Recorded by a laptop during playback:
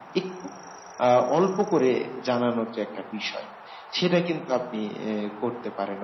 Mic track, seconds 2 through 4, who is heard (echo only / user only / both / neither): echo only